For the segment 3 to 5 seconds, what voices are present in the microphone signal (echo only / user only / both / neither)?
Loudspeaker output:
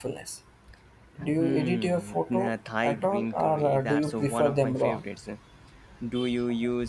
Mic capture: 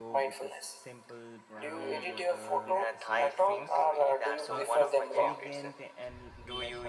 both